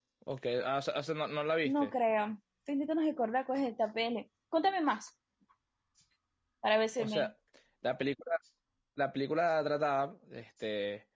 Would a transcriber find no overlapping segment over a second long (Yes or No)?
Yes